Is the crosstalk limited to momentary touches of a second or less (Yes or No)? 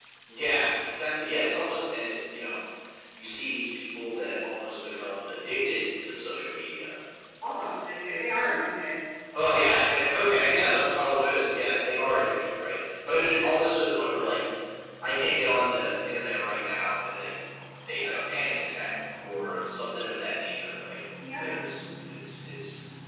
Yes